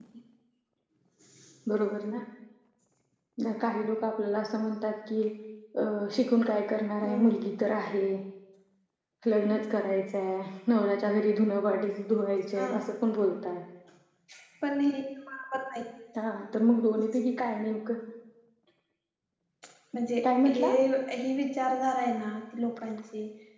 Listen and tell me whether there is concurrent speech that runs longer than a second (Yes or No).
No